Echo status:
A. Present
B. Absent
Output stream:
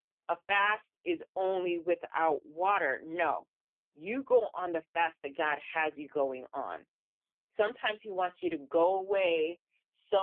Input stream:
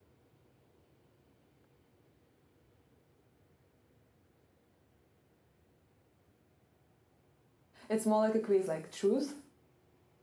B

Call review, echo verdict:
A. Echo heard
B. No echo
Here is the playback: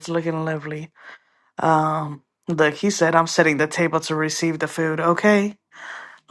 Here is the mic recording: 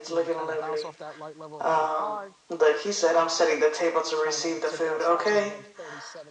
A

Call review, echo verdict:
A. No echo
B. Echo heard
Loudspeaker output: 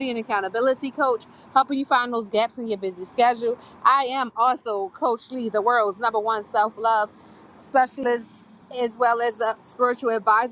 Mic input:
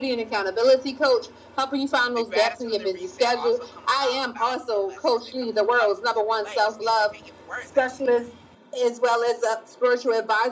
B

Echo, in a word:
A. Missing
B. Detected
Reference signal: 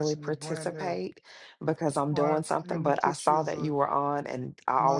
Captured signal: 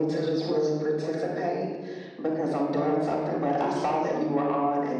B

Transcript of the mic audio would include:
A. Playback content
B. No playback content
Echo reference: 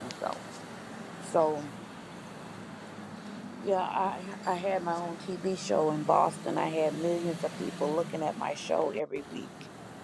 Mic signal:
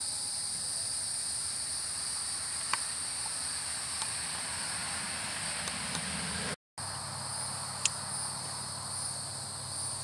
B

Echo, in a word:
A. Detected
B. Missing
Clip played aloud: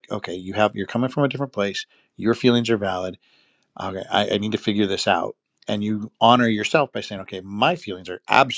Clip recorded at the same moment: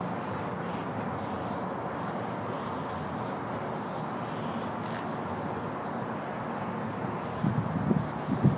B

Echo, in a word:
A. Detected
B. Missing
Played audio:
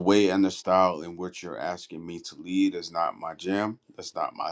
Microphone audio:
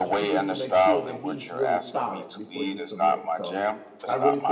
A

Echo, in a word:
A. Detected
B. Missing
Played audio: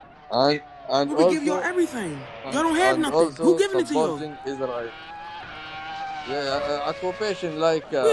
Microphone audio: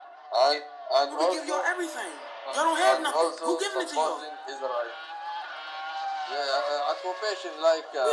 A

